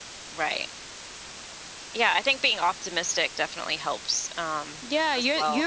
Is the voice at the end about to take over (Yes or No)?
Yes